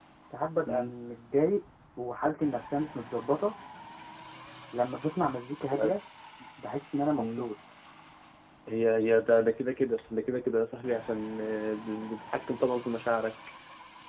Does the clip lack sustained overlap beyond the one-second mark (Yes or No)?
Yes